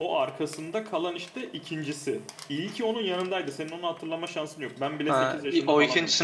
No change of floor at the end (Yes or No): No